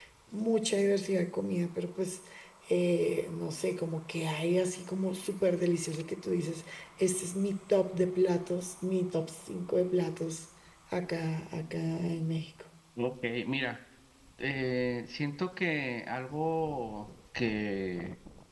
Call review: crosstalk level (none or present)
none